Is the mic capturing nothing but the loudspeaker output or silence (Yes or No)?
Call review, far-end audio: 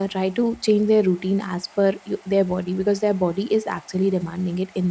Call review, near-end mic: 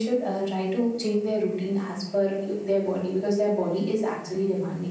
Yes